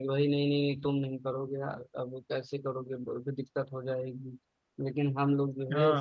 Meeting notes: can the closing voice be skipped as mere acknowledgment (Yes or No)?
Yes